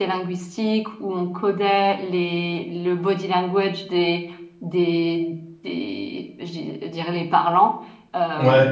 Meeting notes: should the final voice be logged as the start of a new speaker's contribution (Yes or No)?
No